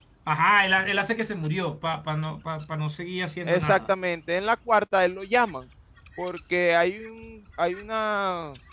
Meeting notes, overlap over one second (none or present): none